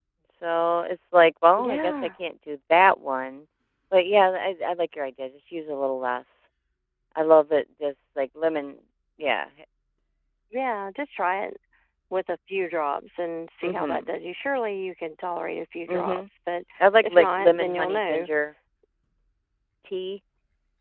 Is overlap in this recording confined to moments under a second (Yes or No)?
No